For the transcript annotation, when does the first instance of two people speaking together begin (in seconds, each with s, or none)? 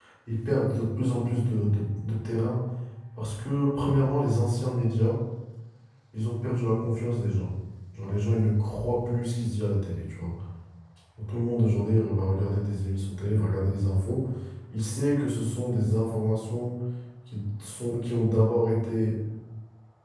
none